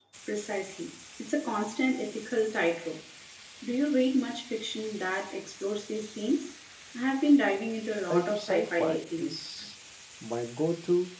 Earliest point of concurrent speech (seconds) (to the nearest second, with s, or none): 8 s